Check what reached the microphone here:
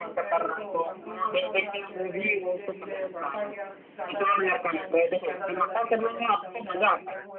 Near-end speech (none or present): present